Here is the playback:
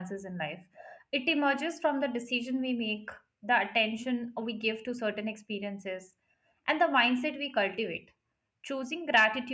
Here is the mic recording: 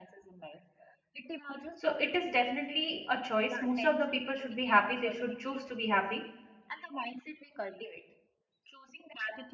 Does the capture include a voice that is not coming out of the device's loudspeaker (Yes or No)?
Yes